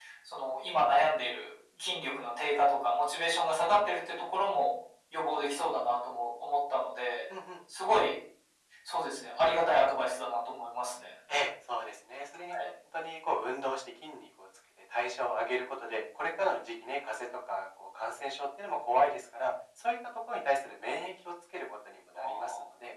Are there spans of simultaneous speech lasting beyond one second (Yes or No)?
No